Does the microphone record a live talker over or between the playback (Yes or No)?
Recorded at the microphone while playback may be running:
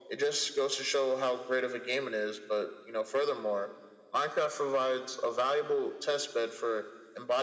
No